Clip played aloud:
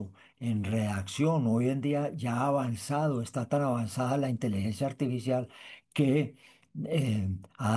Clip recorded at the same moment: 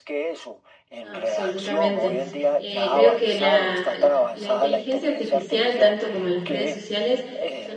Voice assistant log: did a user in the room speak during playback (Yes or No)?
Yes